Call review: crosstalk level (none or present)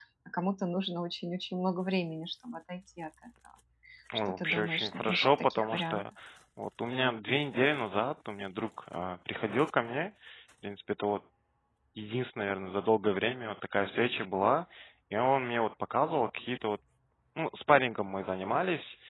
present